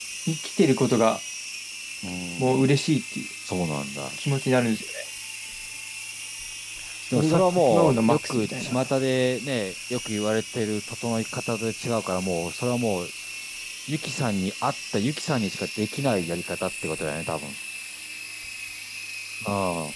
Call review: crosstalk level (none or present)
present